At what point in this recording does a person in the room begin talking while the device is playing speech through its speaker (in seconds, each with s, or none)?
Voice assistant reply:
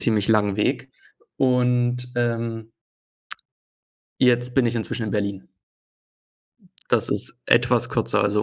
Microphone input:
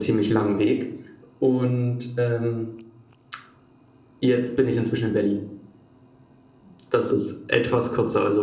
none